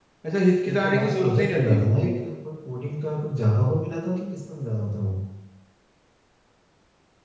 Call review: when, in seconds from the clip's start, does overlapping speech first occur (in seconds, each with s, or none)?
0.7 s